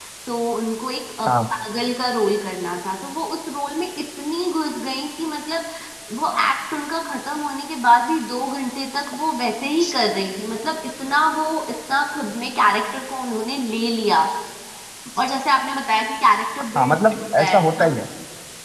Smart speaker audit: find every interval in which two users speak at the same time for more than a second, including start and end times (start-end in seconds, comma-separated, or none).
16.8-17.9